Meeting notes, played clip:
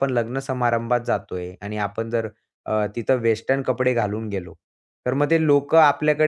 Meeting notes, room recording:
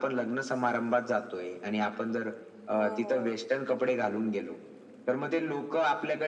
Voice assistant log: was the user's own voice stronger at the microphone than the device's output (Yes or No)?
No